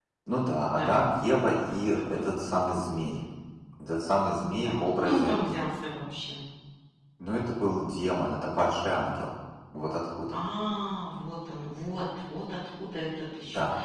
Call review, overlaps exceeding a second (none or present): present